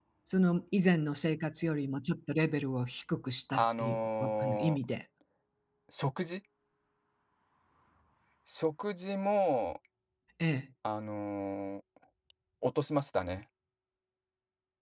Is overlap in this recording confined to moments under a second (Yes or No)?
No